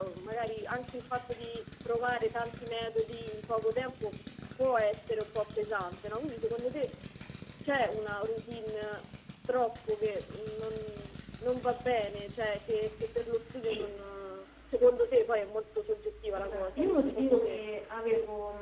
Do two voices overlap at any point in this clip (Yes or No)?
Yes